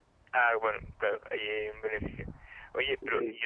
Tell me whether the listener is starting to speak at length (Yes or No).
No